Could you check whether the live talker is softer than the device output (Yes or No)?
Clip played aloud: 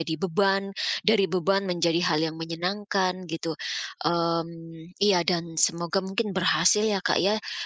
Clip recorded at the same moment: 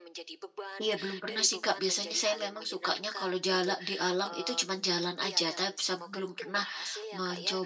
No